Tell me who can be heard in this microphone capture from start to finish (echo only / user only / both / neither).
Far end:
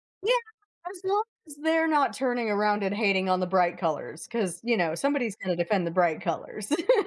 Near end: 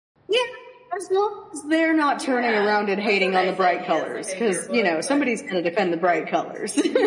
both